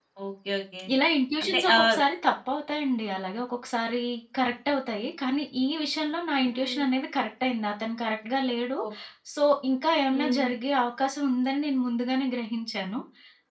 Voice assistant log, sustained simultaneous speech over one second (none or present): none